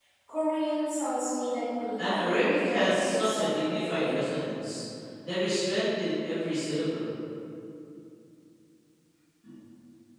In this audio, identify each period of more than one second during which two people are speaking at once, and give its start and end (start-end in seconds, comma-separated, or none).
2.0-4.2